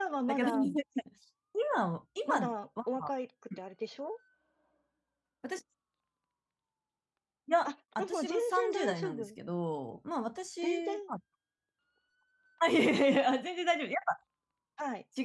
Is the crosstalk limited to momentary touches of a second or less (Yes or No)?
No